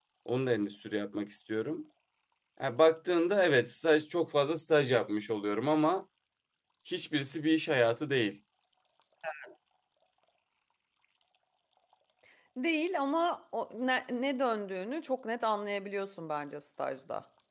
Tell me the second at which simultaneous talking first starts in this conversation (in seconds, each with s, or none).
none